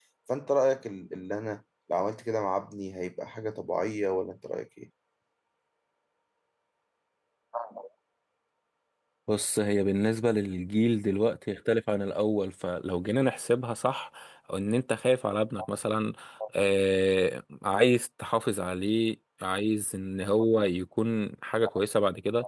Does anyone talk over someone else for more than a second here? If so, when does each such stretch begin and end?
none

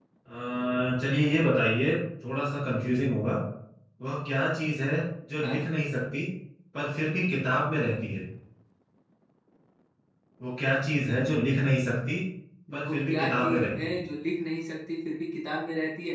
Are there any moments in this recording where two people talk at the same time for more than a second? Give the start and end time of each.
12.7-14.0

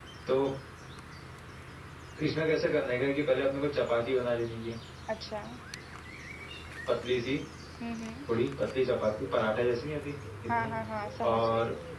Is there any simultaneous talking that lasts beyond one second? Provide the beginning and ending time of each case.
none

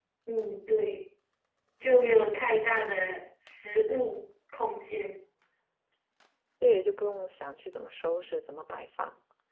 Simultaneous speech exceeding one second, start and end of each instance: none

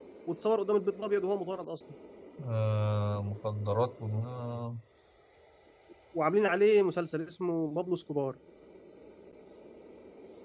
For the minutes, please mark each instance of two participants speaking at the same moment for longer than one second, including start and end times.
none

